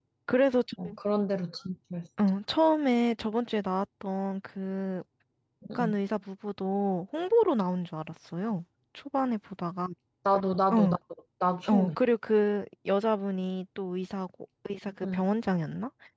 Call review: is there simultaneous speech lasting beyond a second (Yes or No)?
No